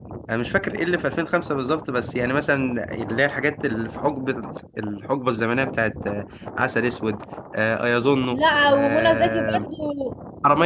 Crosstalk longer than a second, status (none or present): present